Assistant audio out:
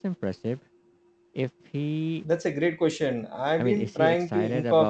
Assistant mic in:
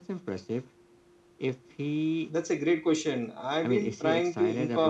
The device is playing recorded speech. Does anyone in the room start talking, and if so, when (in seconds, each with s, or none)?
none